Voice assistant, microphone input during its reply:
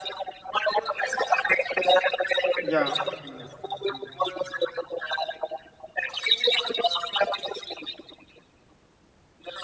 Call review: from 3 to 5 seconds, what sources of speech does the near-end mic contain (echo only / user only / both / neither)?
both